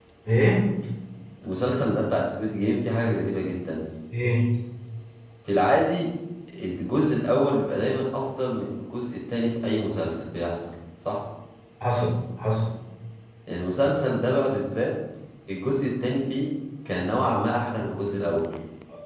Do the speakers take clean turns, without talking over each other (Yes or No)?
Yes